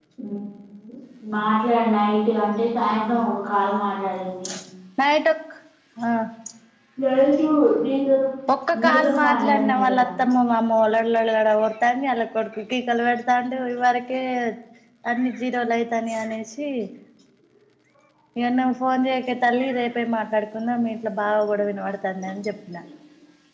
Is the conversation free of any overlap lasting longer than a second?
No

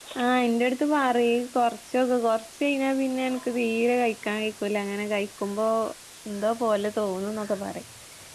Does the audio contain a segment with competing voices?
No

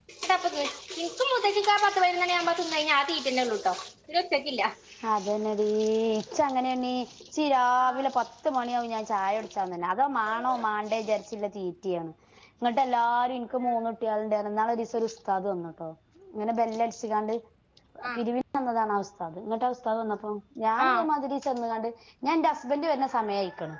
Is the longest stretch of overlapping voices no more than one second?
Yes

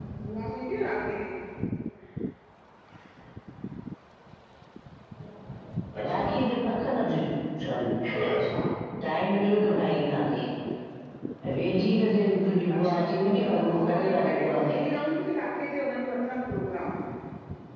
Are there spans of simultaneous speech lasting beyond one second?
Yes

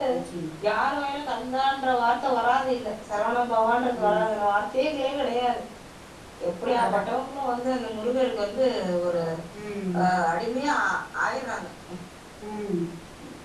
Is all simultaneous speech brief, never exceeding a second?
Yes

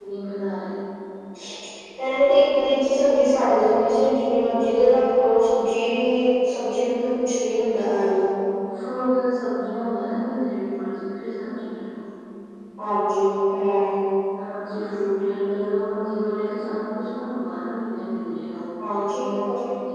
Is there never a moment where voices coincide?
Yes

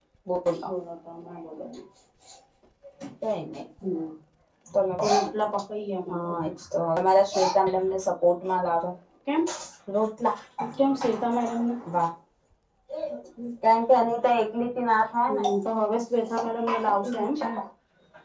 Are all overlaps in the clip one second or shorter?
Yes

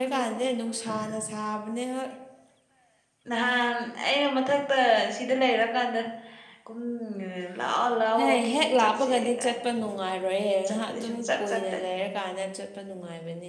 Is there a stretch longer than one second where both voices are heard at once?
Yes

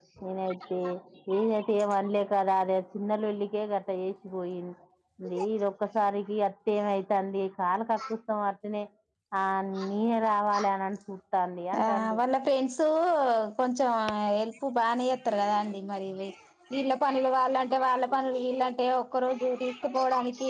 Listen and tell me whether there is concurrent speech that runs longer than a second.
No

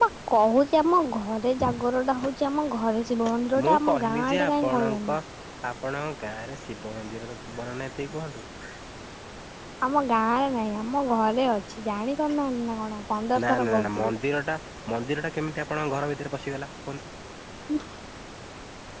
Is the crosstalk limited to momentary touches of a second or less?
No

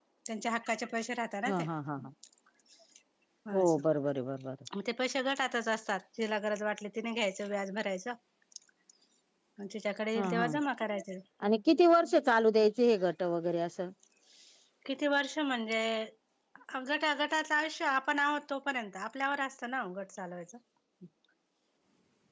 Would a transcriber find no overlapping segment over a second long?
Yes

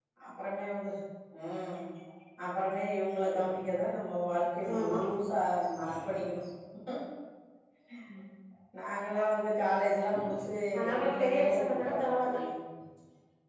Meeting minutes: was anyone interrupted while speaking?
Yes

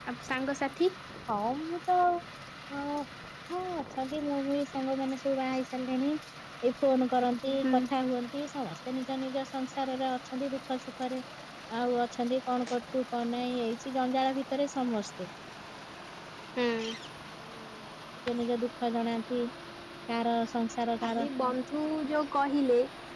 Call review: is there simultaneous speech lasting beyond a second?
No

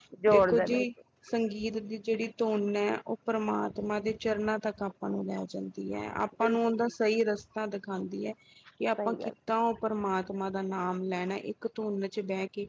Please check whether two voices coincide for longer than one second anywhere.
No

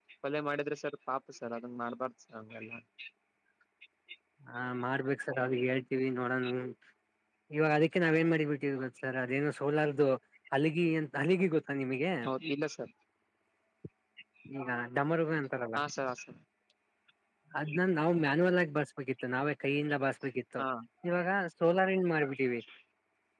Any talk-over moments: No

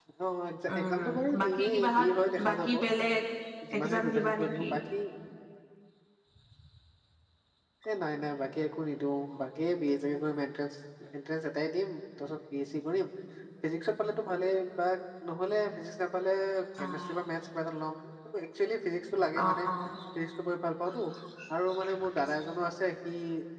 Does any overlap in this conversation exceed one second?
Yes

